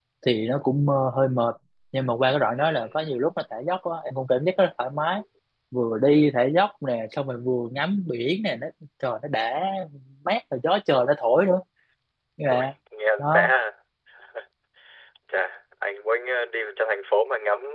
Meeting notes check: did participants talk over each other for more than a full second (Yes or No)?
No